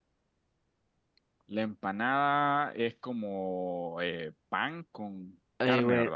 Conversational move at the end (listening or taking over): taking over